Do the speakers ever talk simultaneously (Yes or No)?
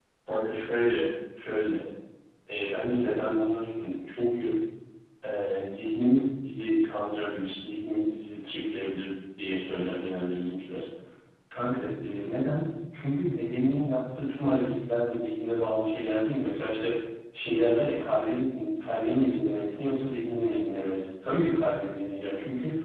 No